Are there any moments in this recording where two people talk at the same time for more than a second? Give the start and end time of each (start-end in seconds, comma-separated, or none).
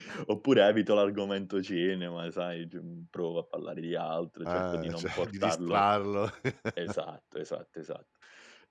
4.4-5.8